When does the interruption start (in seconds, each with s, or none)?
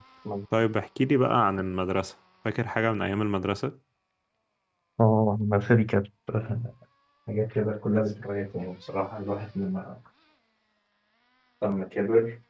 none